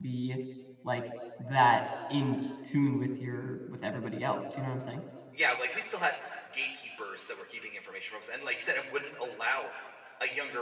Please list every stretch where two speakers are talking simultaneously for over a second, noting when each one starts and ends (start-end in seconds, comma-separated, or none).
none